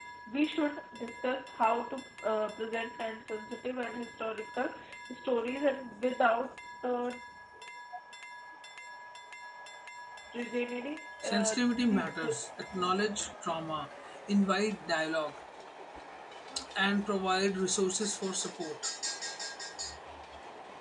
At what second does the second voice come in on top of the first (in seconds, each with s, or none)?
11.2 s